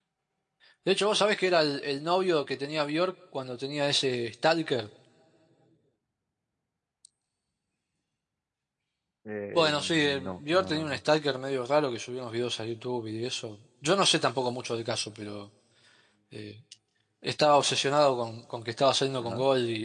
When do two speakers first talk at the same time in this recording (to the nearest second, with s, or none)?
10 s